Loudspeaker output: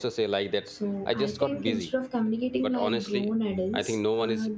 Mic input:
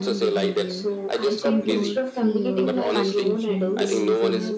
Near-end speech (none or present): present